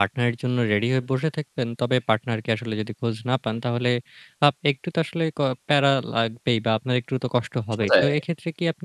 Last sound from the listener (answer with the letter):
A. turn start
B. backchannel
B